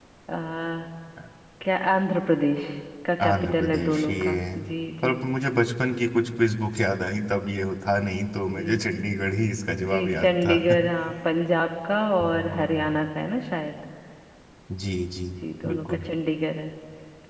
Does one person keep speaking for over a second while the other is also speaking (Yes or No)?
Yes